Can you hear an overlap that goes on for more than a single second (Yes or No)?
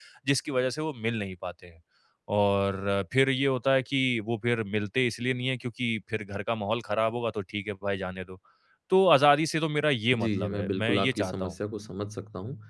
Yes